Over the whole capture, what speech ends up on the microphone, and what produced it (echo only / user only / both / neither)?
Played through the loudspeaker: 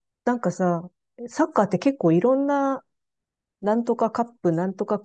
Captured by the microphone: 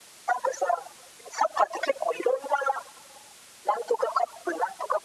echo only